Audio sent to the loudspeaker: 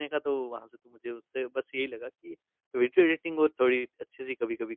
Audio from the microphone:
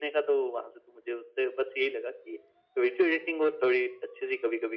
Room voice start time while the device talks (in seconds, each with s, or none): none